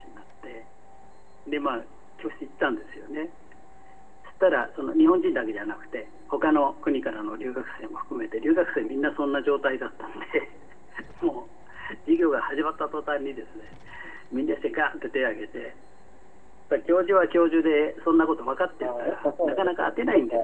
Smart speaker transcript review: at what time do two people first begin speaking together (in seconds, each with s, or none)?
18.8 s